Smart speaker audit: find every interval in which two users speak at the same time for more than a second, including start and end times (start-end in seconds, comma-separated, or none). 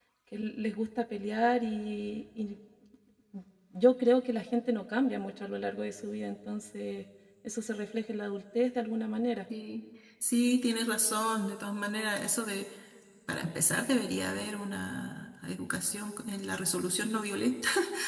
none